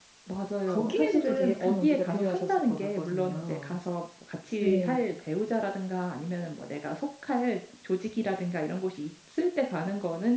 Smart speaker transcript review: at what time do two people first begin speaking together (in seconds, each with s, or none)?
0.7 s